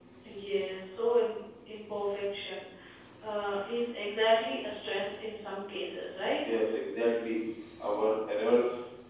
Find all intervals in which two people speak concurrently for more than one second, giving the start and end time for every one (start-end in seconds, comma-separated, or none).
none